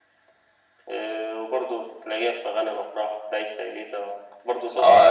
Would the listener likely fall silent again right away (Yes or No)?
No